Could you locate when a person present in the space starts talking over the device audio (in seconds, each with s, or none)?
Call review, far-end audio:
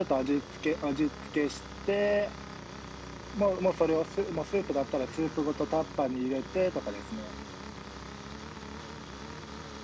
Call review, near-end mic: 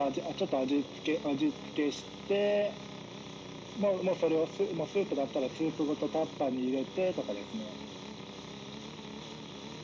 none